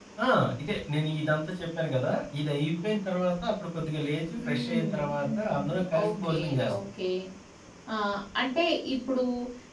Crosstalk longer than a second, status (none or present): present